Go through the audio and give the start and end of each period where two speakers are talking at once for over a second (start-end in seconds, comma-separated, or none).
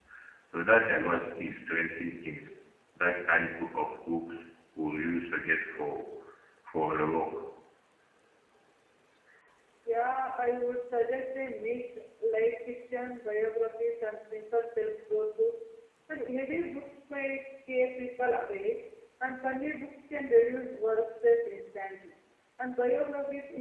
none